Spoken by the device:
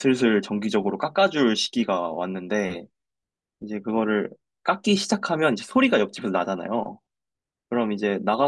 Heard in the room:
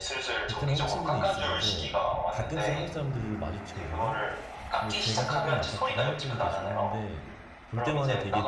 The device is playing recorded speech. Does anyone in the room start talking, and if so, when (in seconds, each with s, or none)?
0.5 s